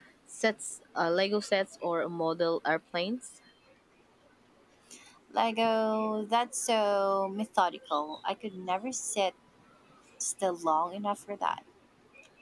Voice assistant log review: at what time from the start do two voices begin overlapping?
none

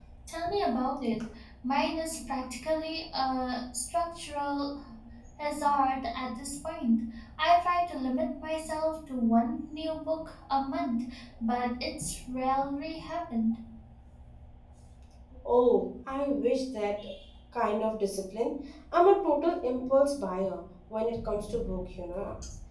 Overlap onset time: none

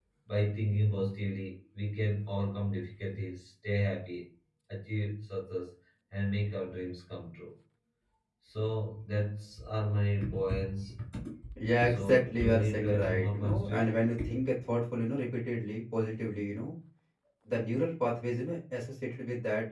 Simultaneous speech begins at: 11.8 s

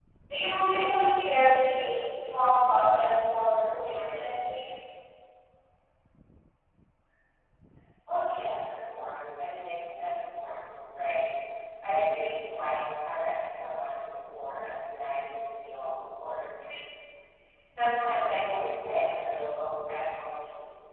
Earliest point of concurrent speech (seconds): none

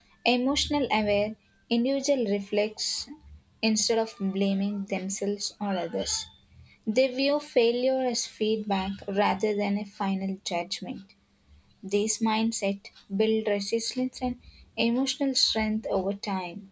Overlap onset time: none

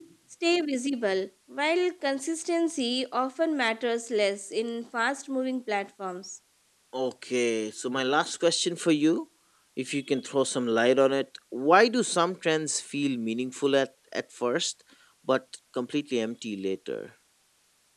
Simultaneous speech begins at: none

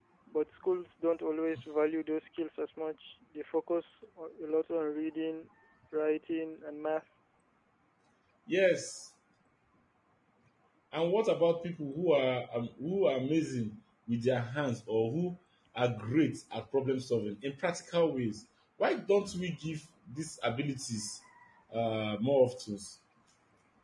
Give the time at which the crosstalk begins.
none

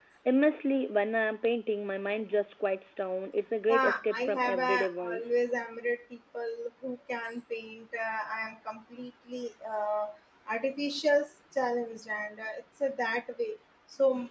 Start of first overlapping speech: 3.7 s

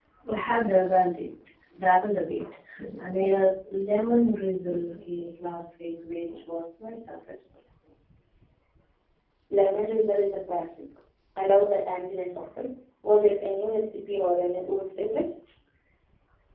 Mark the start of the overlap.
none

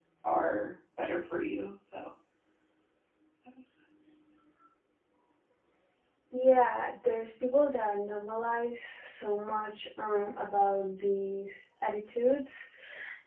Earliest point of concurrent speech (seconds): none

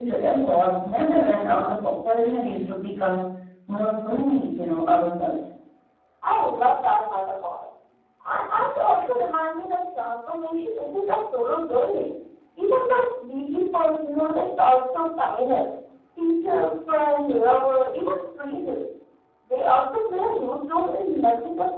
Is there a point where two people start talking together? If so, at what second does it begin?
none

